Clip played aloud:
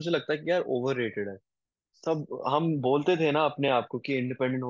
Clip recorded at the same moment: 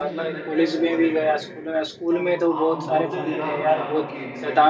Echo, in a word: present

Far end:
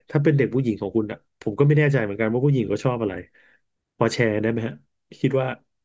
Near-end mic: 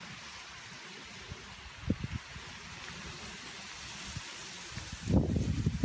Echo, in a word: none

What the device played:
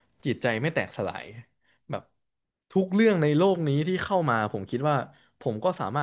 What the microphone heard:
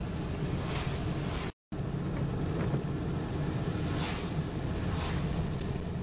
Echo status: none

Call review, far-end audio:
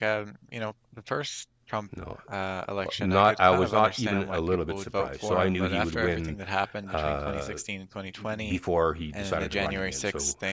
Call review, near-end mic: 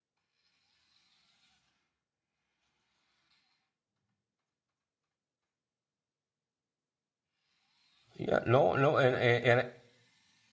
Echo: none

